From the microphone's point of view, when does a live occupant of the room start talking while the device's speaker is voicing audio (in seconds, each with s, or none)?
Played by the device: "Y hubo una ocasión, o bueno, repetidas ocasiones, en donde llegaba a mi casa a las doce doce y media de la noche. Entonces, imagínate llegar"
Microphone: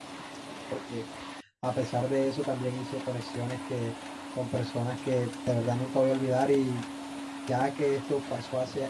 0.7 s